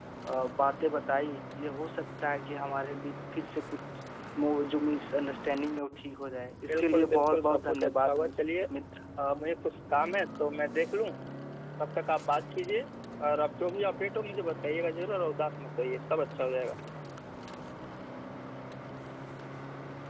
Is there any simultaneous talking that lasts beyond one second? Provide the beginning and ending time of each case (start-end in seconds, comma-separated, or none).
6.7-8.3